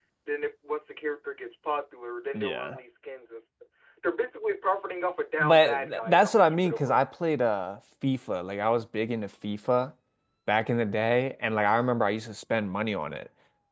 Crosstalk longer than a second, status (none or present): present